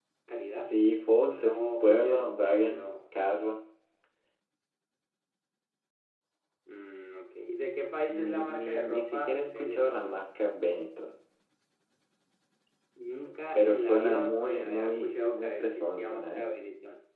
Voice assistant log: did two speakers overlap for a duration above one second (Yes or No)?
Yes